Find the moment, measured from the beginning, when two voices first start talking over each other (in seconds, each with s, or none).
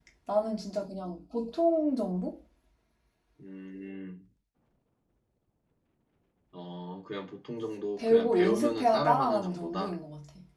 8.0 s